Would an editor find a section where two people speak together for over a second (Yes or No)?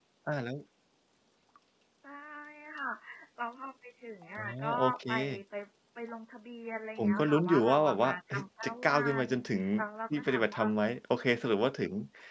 Yes